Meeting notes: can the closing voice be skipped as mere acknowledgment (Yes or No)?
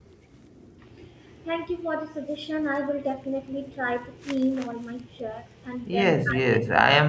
No